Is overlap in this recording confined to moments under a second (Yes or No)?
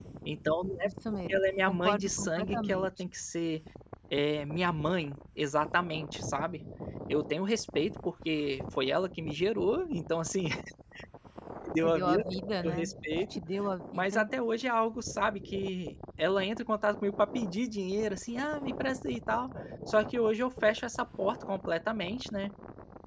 No